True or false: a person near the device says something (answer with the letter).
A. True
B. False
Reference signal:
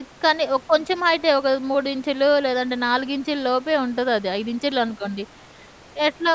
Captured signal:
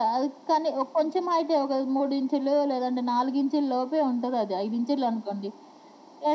B